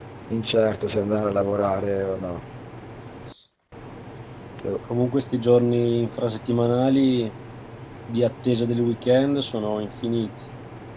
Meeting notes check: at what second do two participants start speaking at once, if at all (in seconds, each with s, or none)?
none